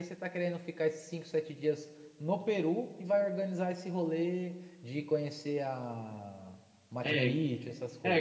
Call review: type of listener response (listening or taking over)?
taking over